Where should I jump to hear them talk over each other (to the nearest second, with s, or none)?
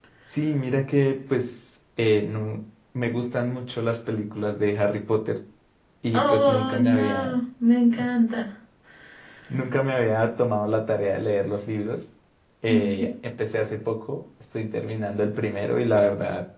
6 s